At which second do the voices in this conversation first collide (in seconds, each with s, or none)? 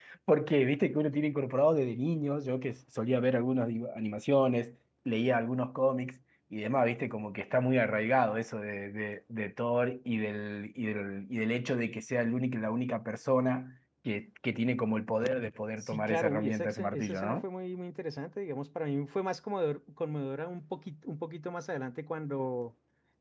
15.8 s